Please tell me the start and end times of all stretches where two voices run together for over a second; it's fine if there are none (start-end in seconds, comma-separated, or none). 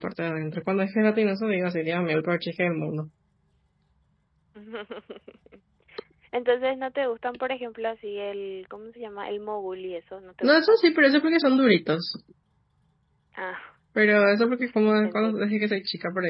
none